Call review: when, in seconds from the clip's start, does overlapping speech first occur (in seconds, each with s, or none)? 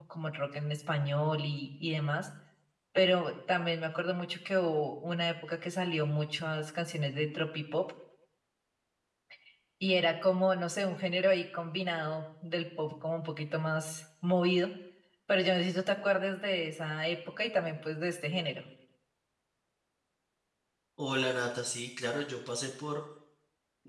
none